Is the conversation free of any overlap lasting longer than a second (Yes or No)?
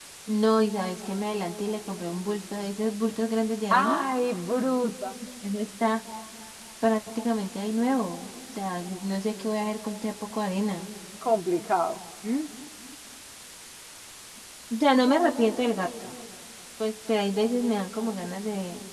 Yes